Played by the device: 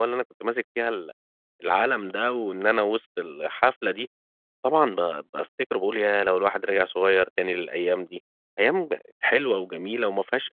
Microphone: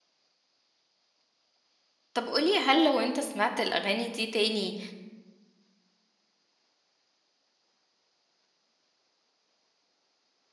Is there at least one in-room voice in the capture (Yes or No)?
Yes